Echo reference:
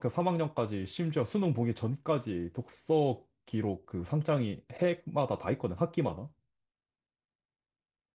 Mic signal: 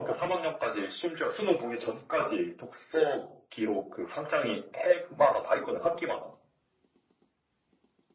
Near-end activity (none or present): none